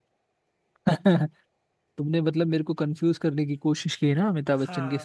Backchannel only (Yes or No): No